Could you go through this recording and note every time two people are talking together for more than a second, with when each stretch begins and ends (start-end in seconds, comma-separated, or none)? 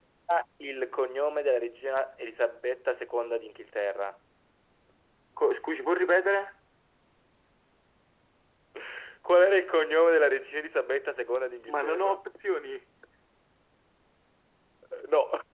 none